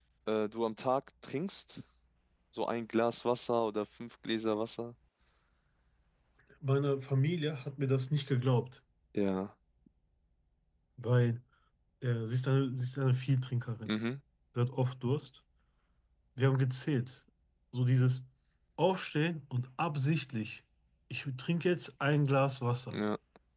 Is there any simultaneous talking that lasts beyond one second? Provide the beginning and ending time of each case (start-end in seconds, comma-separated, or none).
none